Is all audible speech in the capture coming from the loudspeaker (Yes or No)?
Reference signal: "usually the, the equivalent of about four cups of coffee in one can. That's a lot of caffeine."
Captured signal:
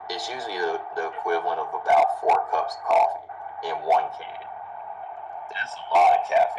Yes